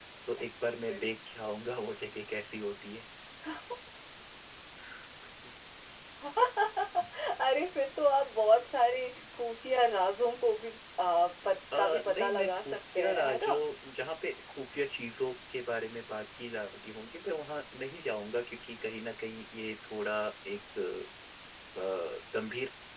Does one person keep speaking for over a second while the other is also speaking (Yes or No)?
Yes